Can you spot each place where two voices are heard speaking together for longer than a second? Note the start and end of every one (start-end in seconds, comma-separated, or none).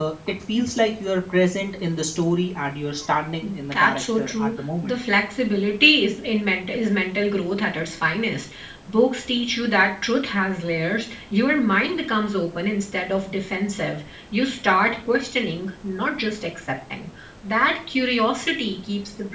3.7-4.9